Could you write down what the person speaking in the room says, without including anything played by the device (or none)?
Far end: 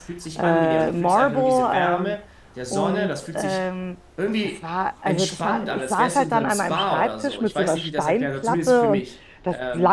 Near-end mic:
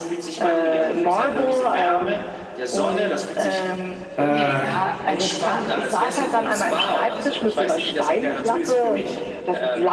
Äh,